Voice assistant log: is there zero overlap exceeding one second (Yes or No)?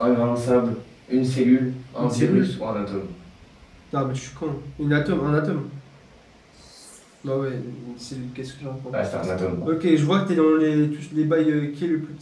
Yes